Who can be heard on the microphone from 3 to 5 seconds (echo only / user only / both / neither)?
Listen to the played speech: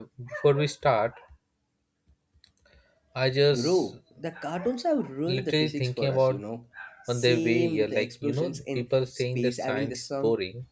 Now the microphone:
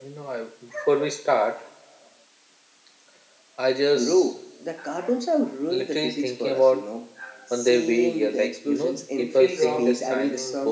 echo only